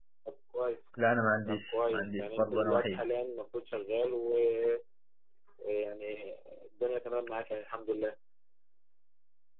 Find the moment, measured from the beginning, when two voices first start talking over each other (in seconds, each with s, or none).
1.4 s